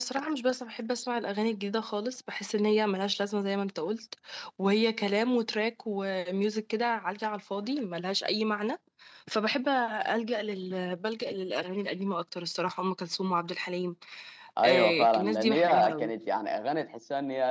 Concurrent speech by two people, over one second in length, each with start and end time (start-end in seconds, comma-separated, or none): 14.6-16.1